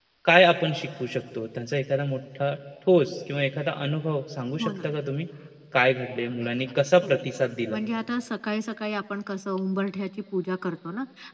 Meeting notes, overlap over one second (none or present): none